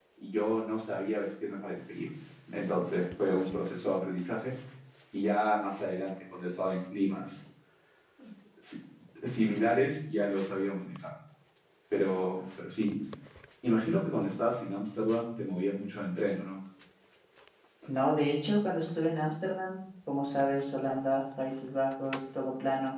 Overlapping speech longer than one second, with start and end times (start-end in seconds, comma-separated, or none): none